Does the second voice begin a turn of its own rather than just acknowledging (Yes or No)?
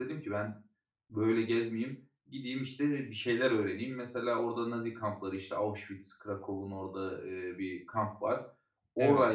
No